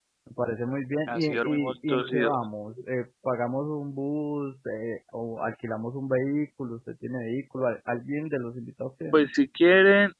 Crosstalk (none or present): present